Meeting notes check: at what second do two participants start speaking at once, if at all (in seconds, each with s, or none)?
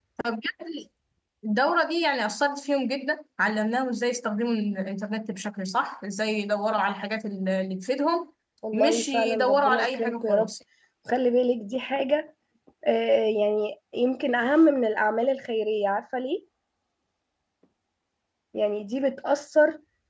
8.7 s